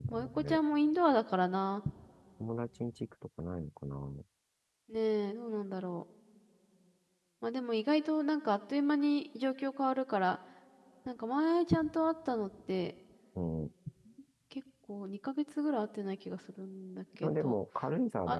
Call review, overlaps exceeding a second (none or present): none